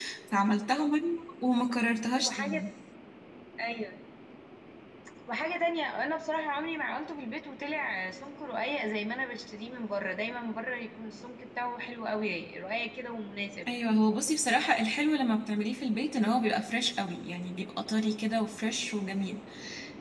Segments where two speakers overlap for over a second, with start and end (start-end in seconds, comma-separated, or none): none